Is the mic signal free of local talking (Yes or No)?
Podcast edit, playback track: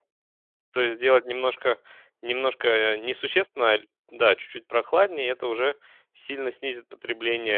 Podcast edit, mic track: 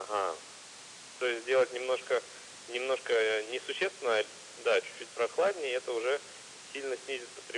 Yes